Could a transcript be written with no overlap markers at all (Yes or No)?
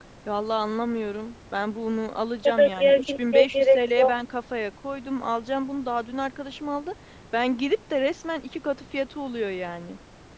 No